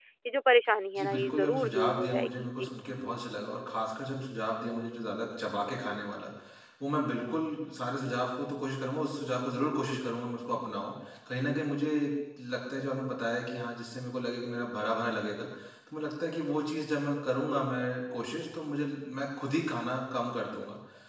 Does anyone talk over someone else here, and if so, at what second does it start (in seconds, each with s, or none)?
1.0 s